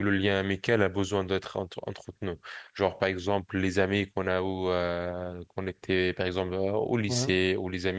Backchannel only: Yes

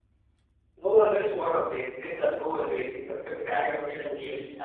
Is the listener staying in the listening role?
No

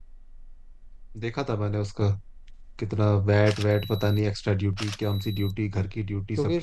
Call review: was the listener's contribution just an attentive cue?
No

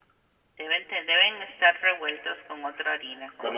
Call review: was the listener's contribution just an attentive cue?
No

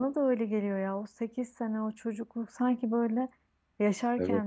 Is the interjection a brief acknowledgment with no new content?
Yes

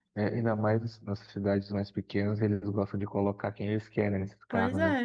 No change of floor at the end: No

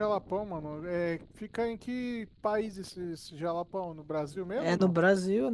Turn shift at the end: Yes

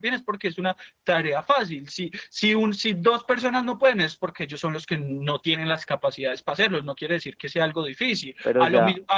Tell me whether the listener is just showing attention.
Yes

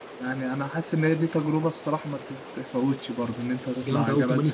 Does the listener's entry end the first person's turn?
Yes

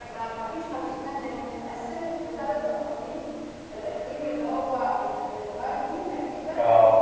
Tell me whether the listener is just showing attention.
Yes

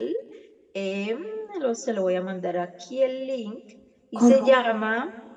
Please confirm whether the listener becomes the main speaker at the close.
No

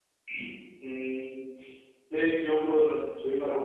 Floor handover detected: No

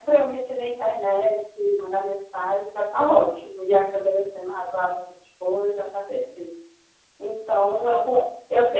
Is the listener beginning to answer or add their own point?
No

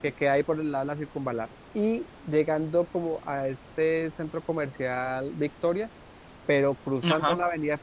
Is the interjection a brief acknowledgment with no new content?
Yes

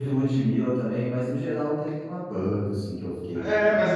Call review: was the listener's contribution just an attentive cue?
No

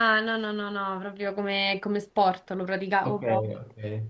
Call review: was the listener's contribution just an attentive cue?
No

